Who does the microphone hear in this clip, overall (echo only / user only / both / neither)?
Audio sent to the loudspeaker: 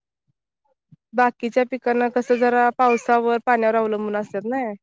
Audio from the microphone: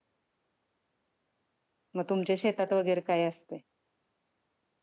user only